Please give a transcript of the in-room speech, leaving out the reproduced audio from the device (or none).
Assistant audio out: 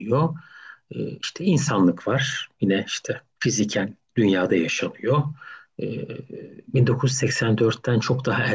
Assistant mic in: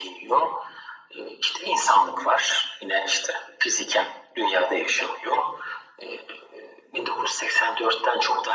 none